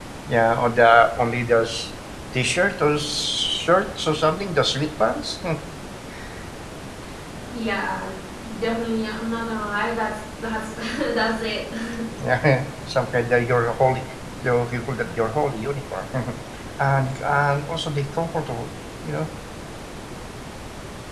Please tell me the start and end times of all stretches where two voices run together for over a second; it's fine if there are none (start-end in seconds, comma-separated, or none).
none